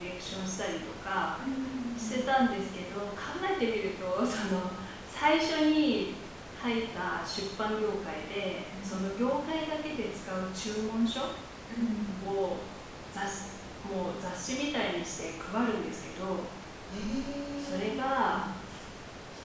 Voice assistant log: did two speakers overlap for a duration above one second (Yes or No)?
No